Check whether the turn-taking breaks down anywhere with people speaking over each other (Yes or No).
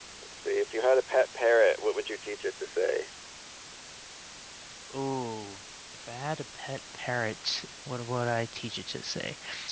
No